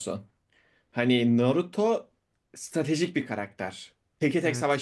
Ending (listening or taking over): listening